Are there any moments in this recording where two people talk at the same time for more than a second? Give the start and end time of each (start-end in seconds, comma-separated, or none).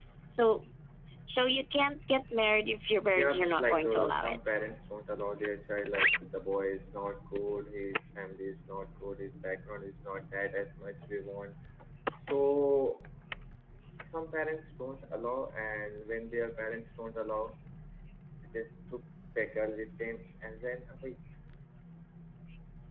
3.1-4.5